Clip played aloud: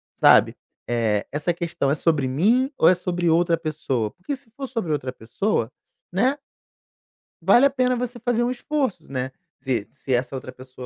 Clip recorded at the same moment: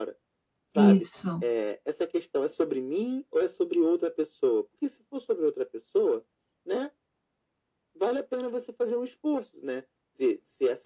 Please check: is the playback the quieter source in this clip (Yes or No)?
Yes